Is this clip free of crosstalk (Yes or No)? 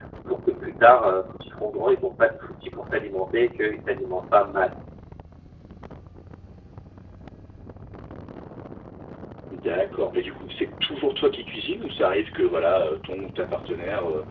Yes